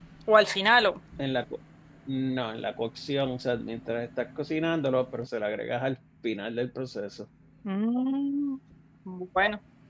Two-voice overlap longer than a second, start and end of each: none

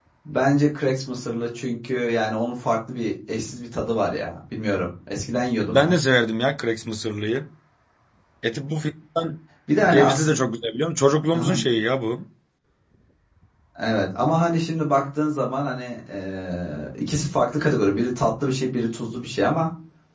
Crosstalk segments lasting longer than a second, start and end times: none

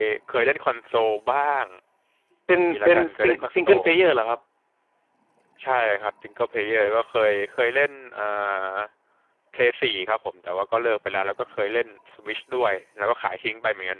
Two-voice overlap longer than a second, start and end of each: 2.5-3.8

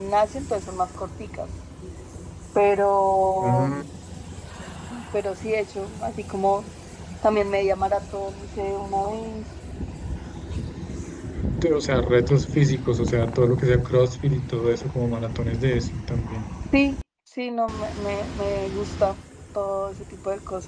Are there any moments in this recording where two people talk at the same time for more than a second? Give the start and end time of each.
none

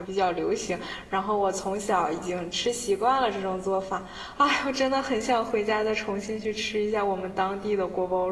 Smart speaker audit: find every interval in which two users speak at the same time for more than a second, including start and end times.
none

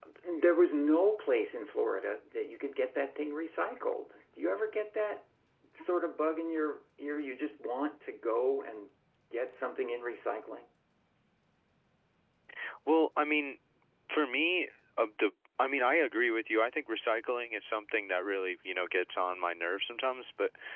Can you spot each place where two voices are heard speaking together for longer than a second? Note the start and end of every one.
none

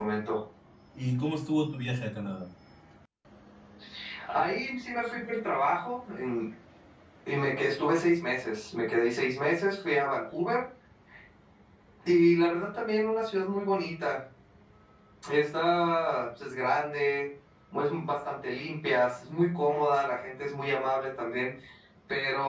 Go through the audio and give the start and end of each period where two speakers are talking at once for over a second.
none

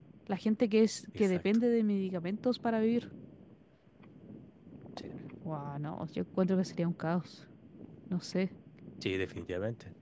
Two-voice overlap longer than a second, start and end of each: none

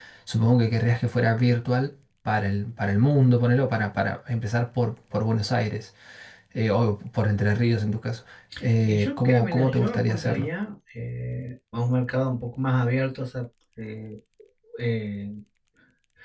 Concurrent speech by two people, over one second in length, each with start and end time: 8.9-10.5

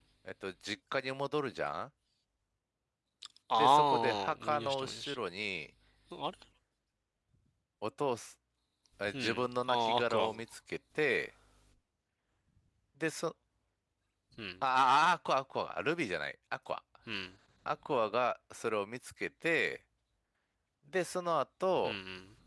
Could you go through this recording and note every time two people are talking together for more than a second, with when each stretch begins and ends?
3.6-5.2, 9.1-10.3

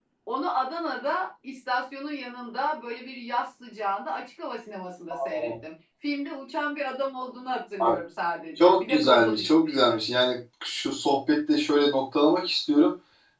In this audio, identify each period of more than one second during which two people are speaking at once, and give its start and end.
8.6-10.0

